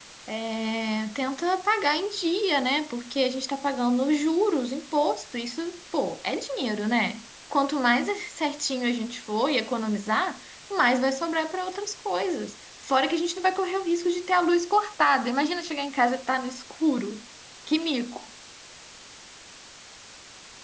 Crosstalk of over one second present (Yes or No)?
No